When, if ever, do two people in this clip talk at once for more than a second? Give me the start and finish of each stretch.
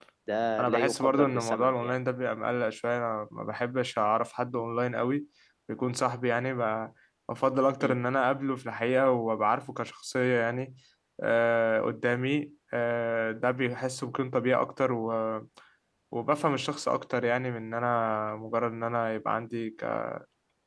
0.6-1.9

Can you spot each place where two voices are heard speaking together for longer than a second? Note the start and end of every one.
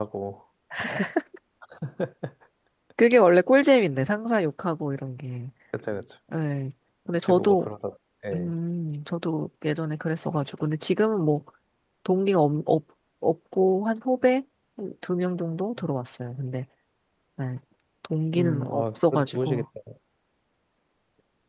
18.3-19.6

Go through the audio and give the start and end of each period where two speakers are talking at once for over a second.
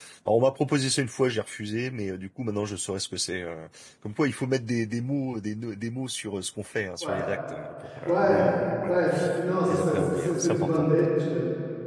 9.7-10.9

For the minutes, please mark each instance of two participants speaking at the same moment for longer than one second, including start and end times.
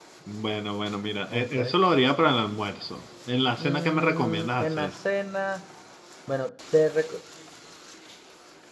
3.5-4.9

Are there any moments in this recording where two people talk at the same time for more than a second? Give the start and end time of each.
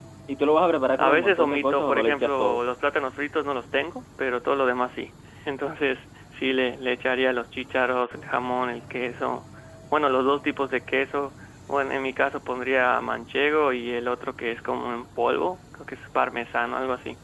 1.0-2.6

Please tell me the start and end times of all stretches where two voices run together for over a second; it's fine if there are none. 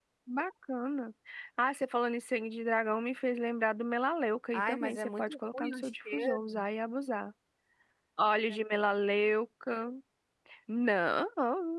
4.5-6.6

